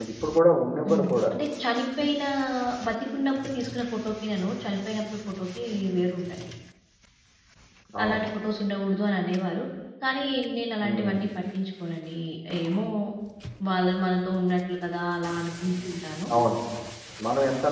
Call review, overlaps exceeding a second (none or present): none